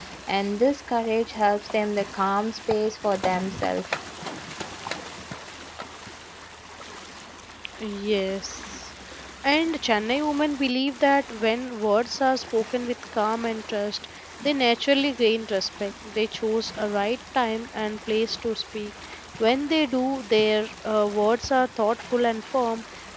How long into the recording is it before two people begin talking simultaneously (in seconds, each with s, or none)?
none